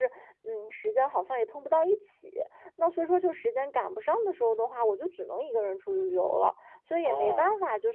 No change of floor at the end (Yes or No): Yes